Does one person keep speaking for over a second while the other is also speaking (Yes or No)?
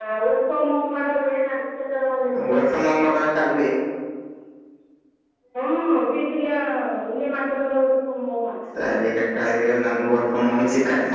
No